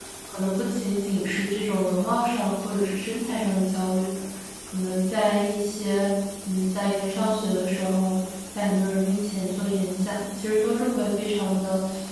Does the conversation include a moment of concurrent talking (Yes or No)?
No